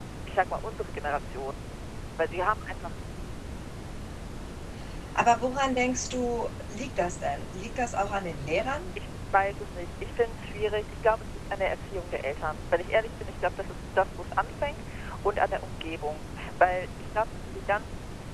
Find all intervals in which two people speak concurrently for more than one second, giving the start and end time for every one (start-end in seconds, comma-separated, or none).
none